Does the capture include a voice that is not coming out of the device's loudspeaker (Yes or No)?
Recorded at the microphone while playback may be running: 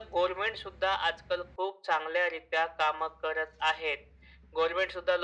No